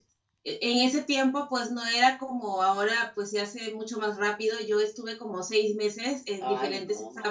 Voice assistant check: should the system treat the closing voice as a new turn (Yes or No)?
No